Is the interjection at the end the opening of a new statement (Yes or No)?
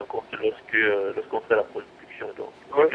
No